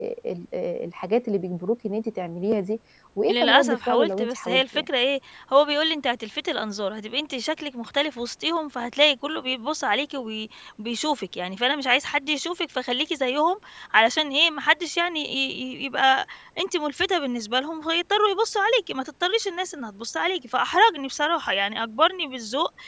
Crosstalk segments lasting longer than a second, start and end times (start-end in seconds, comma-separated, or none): 3.3-4.9